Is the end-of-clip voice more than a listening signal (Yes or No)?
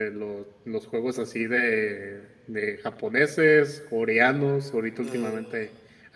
No